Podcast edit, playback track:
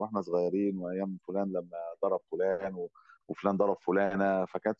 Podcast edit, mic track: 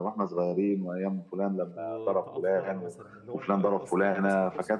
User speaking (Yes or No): Yes